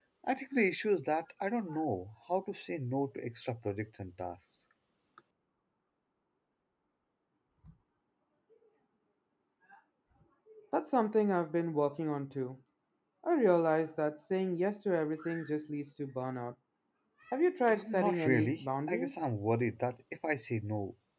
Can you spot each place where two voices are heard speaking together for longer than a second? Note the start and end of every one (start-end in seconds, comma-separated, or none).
17.8-19.1